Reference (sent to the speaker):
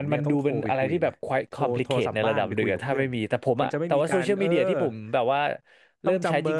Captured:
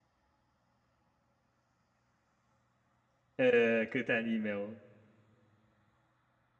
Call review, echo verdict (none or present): none